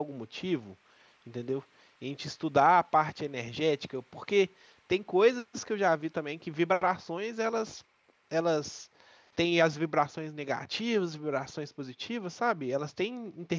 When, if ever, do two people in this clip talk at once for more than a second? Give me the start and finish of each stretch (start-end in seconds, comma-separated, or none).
none